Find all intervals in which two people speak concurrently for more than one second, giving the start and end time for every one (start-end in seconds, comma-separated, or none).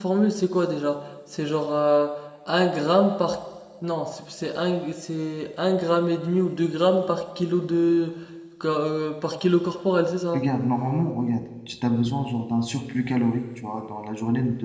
none